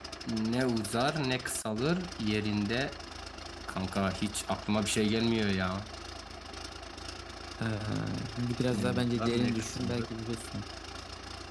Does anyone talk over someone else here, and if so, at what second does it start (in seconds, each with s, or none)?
8.7 s